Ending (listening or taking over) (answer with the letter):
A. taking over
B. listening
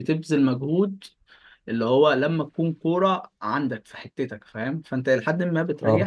B